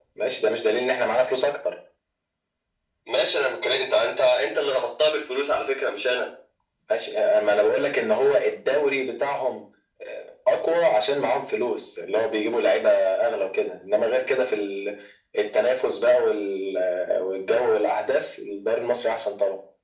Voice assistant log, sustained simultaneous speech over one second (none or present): none